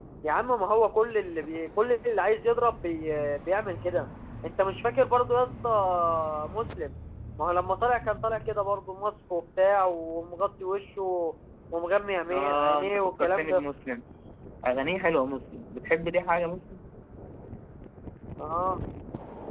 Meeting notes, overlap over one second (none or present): present